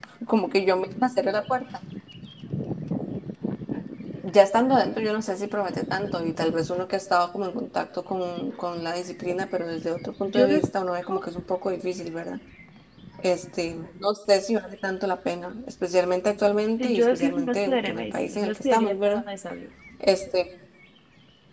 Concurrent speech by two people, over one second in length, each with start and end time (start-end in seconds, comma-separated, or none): 16.8-19.2